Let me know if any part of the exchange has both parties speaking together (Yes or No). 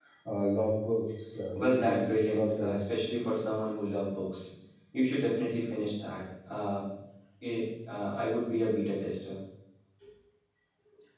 Yes